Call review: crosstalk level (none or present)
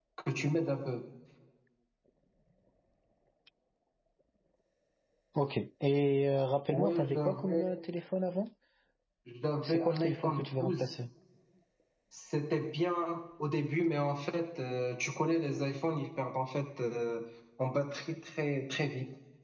present